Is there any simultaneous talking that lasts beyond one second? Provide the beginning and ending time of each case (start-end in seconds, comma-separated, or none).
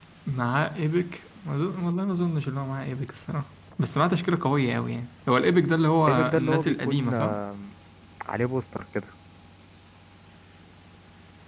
6.1-7.3